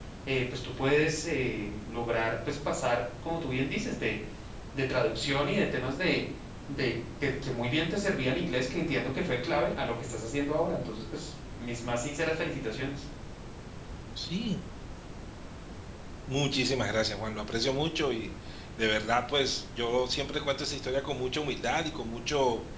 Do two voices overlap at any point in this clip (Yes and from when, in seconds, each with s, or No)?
No